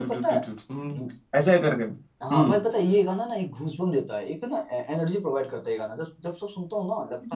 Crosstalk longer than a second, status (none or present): none